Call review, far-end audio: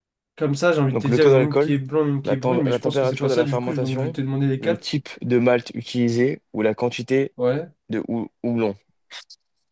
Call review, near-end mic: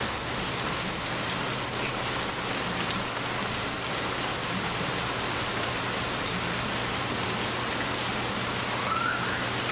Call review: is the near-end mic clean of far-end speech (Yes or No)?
Yes